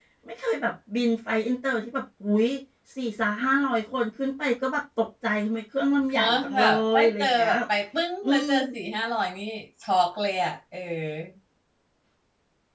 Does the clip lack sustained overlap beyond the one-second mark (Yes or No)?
No